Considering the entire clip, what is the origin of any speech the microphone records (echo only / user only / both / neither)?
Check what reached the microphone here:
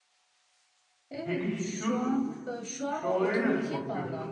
both